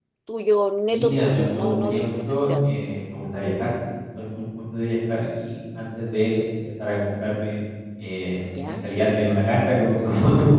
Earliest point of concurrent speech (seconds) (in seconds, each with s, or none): 0.9 s